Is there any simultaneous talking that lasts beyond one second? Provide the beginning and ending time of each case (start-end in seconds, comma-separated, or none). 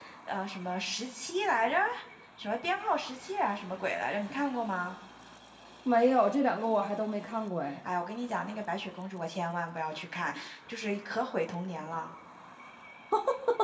none